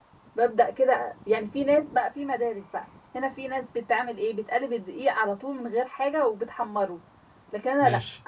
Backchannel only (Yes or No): Yes